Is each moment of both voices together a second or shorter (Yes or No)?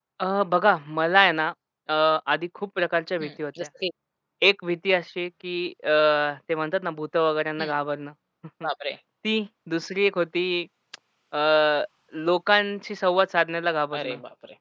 Yes